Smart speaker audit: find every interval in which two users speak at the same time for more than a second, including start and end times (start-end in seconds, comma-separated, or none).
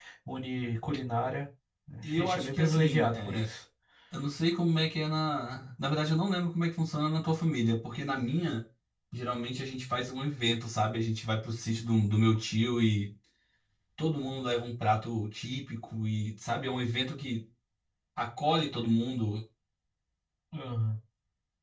2.0-3.5